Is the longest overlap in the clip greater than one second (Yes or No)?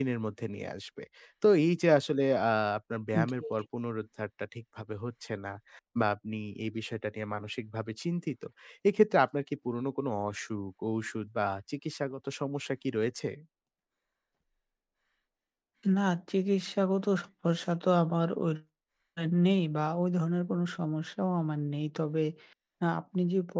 No